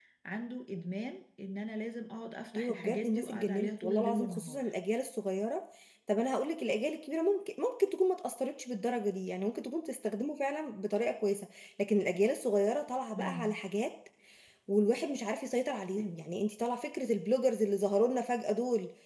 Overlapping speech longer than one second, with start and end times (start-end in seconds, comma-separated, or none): 2.5-4.7